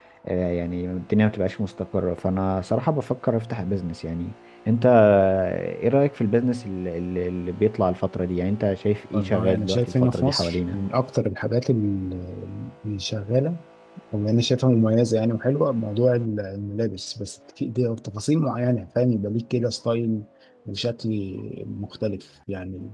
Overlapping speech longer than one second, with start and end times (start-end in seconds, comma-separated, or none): 9.1-10.8